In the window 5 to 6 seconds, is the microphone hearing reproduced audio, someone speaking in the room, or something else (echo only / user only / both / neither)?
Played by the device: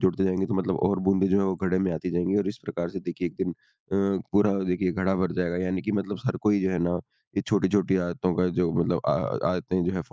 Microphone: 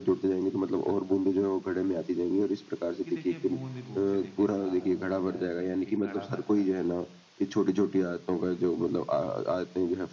both